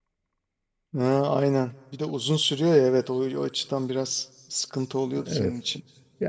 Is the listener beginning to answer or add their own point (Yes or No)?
Yes